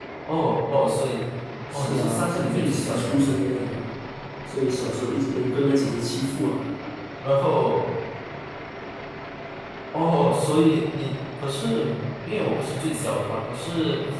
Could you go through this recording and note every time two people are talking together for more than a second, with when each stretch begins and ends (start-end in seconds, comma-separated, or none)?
1.7-3.4